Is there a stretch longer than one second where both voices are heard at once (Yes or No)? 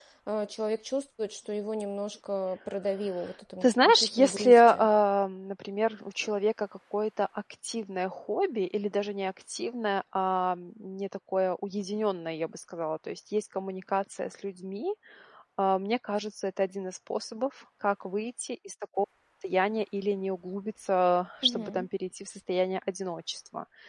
Yes